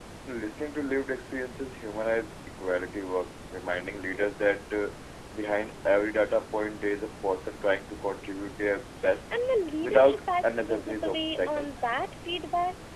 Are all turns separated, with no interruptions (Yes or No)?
No